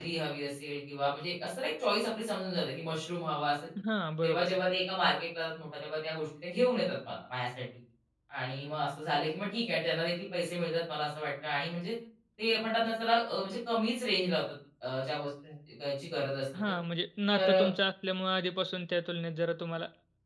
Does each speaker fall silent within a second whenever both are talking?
Yes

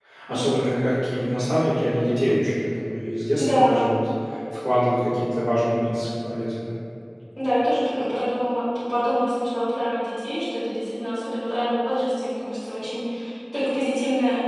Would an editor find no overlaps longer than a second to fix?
Yes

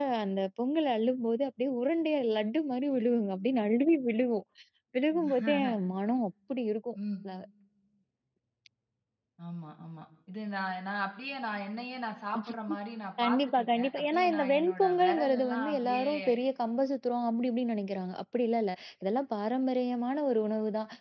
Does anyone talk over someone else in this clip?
Yes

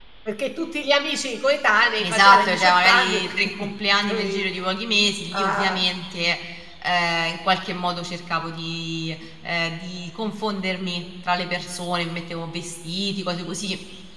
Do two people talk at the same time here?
Yes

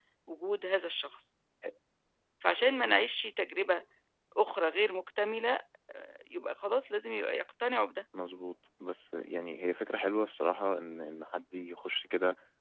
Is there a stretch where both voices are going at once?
No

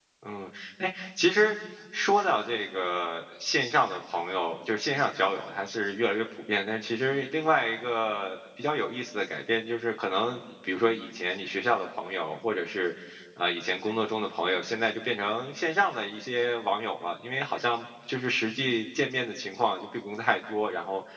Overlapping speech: No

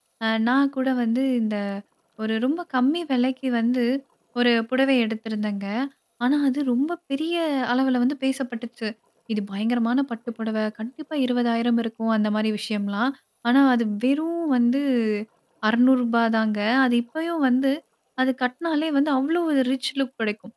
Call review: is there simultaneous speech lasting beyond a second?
No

